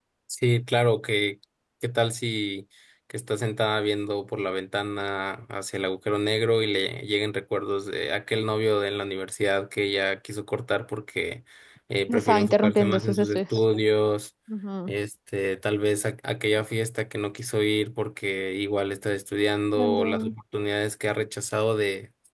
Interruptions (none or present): present